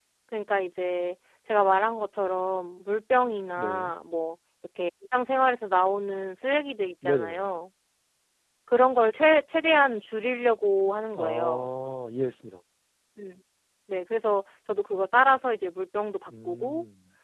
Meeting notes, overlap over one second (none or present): none